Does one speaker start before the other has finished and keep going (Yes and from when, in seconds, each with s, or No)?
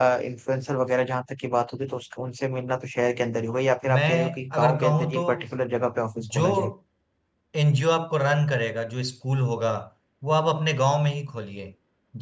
Yes, from 3.8 s